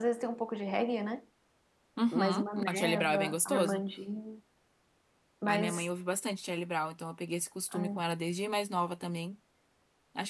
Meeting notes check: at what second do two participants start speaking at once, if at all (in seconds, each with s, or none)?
2.1 s